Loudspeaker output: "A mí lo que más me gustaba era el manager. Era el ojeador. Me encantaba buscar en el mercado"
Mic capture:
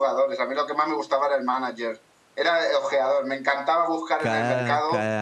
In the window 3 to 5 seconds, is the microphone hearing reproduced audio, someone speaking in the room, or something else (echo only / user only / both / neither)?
both